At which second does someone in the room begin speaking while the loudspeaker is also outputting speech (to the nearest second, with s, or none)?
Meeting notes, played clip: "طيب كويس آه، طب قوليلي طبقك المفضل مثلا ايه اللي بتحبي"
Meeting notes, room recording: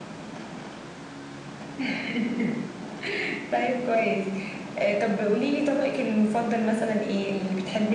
none